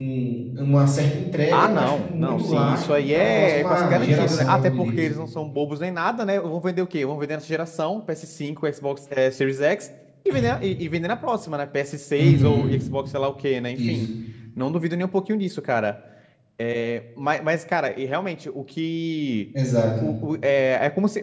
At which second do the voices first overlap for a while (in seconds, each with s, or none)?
1.5 s